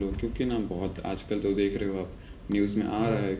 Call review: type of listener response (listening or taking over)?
listening